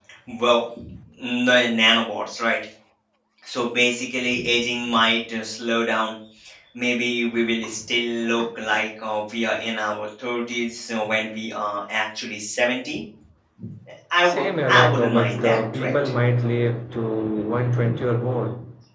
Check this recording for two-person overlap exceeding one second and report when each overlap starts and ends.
14.3-15.9

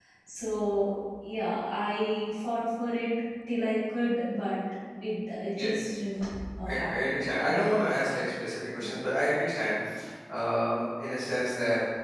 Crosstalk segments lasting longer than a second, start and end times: 6.7-7.9

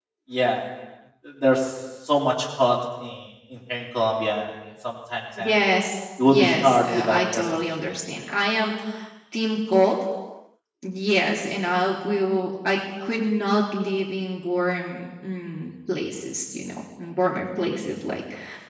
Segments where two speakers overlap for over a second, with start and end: 6.2-7.7

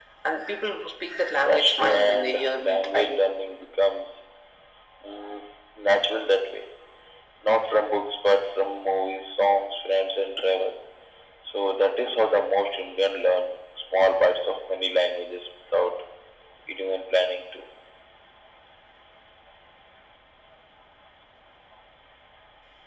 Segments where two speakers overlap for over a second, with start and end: 1.4-3.1

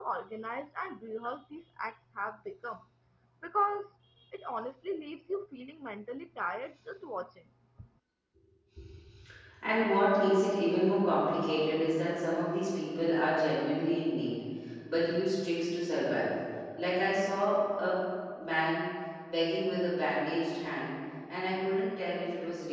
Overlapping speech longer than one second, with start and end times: none

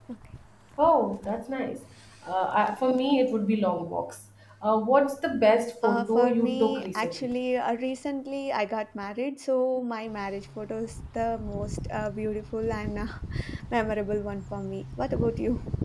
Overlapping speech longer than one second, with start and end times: 5.8-7.3

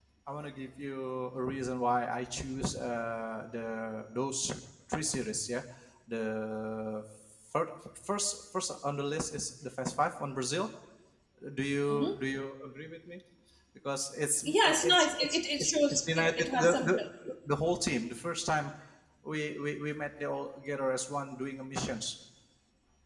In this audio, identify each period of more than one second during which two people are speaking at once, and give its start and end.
14.4-16.9

